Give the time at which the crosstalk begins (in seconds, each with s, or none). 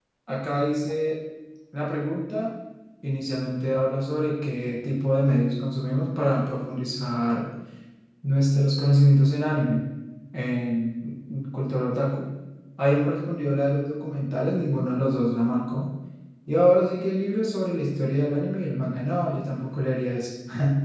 none